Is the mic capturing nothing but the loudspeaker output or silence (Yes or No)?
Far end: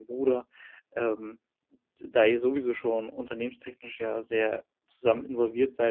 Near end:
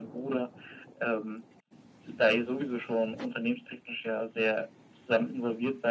Yes